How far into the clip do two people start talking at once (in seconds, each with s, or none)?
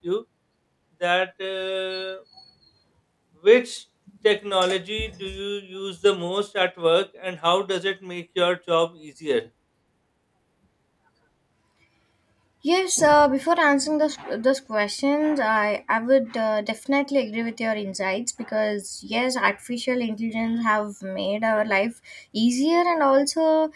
none